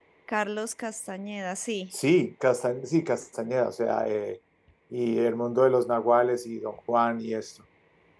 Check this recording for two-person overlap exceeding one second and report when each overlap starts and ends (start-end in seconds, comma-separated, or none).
none